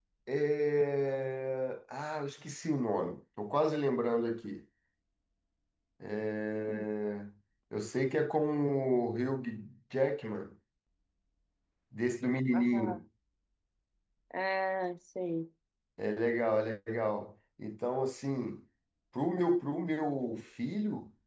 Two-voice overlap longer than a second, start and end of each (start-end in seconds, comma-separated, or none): none